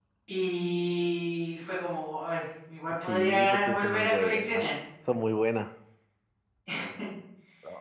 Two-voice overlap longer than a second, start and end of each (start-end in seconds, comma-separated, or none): 3.0-4.7